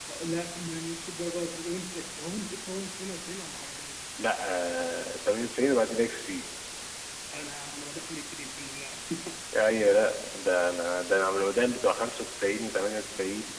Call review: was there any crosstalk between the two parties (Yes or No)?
No